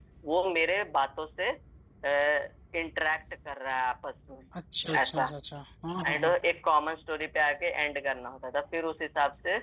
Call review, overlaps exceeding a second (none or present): none